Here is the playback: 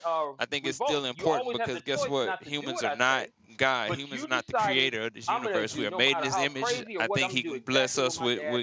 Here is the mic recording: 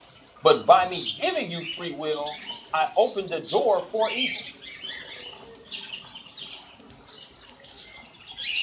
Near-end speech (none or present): present